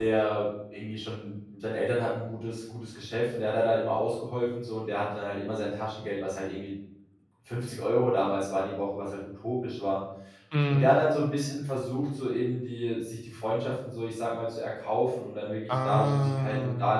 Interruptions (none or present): present